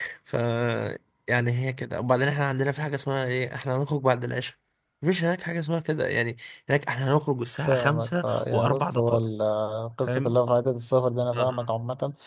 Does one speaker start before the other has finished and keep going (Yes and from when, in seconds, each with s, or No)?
Yes, from 7.6 s